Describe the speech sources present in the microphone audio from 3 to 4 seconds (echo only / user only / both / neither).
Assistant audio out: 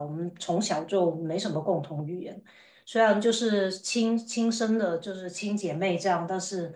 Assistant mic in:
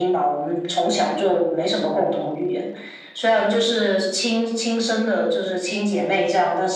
echo only